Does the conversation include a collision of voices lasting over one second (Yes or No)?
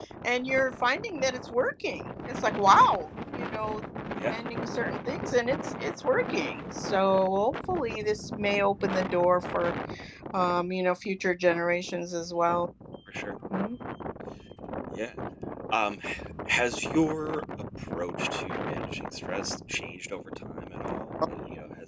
No